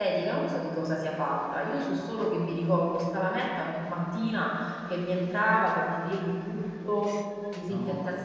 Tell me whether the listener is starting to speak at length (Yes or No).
No